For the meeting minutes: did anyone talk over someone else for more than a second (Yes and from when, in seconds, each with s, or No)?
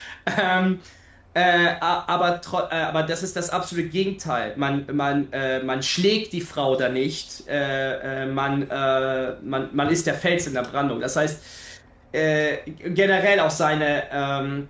No